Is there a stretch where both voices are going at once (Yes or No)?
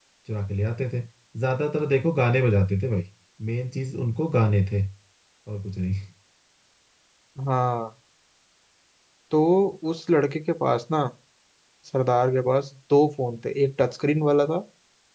No